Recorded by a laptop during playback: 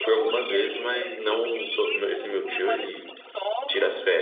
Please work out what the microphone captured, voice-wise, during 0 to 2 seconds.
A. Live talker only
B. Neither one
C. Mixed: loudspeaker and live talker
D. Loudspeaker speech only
C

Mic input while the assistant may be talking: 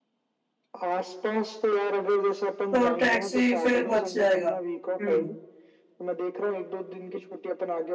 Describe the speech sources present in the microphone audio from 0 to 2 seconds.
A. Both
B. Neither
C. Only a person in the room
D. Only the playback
D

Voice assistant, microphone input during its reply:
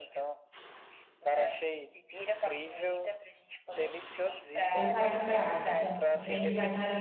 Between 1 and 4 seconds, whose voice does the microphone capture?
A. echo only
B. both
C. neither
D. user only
A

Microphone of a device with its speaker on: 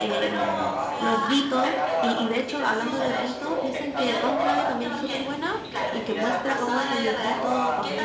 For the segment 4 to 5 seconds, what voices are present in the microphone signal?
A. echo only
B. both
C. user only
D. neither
B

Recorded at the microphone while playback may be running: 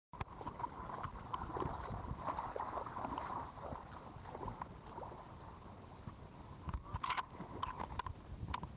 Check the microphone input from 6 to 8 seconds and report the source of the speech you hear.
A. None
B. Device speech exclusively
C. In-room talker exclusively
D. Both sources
A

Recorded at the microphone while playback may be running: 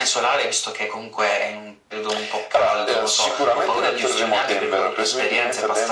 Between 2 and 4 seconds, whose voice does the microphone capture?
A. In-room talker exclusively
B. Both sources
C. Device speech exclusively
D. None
C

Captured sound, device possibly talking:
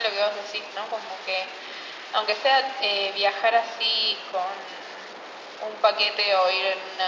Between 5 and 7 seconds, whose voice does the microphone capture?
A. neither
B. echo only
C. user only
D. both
B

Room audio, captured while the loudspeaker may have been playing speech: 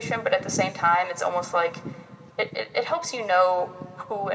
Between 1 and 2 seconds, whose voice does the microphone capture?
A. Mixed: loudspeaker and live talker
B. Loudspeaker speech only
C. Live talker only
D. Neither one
B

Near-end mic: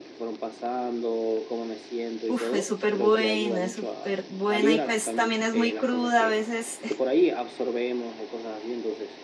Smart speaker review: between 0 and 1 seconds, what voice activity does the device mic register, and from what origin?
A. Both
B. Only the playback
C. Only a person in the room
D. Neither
B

